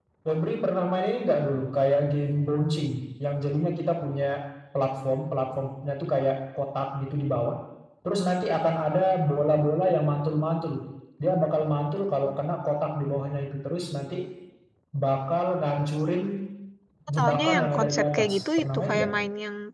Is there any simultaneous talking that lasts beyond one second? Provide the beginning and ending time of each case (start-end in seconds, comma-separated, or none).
17.2-19.1